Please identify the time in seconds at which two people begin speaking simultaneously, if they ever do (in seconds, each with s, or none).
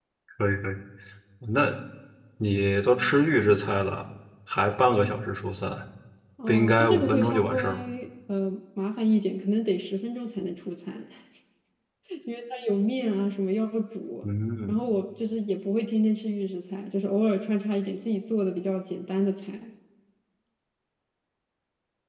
6.5 s